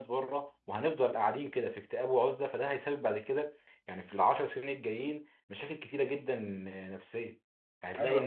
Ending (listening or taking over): listening